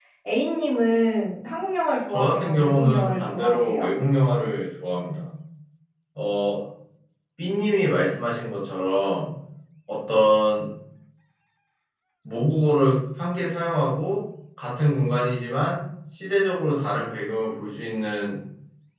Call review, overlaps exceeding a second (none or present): present